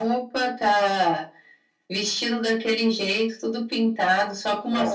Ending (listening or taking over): taking over